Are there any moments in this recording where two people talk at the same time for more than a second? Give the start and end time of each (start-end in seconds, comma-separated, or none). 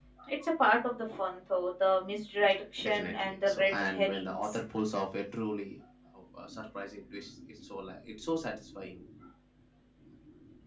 2.8-4.6